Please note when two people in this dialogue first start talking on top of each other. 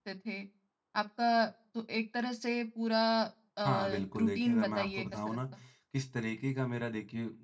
3.6 s

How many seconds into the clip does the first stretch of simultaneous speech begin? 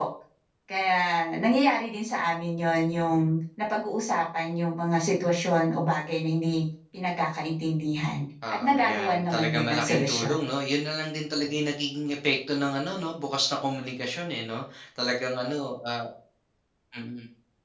8.4 s

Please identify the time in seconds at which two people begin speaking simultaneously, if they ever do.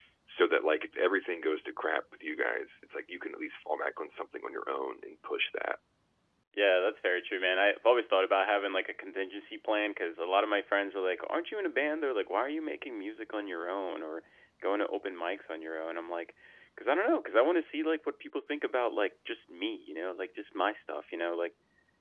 none

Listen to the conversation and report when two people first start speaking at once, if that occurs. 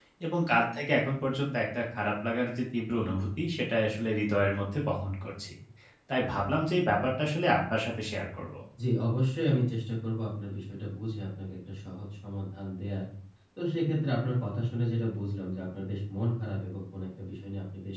none

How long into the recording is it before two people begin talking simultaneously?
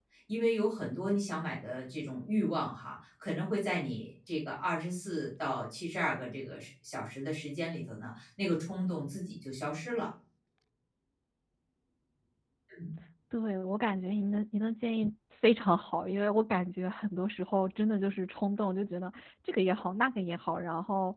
none

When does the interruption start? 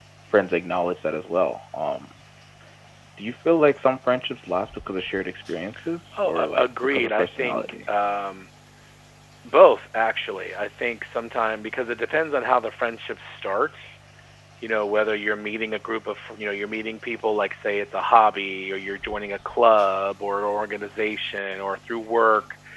6.1 s

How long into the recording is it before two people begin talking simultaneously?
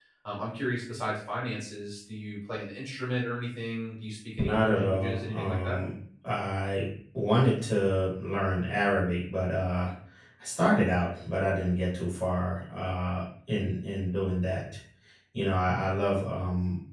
4.4 s

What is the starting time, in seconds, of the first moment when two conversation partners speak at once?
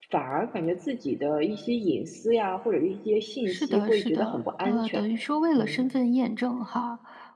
3.5 s

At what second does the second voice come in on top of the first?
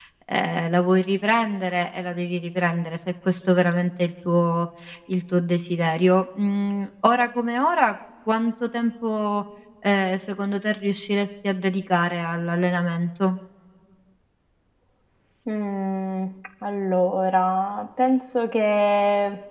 none

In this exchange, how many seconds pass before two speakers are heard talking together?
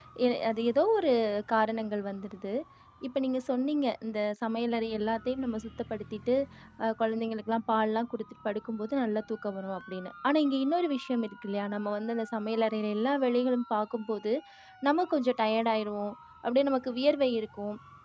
none

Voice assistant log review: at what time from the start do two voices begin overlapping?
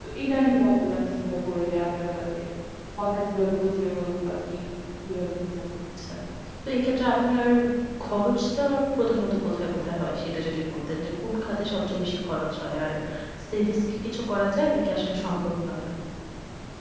none

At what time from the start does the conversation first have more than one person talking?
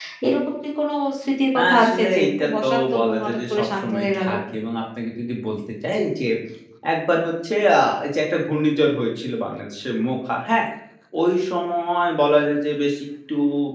1.6 s

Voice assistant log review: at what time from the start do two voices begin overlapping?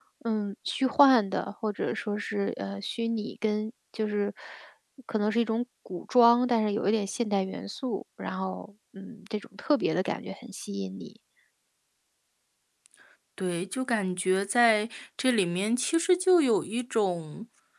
none

